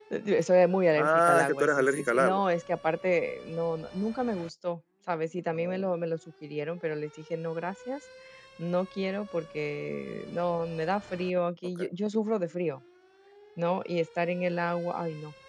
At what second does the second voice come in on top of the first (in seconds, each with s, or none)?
0.9 s